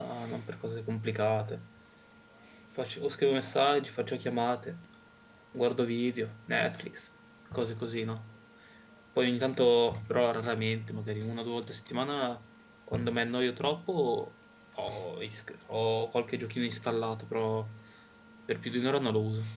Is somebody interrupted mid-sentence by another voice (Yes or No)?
No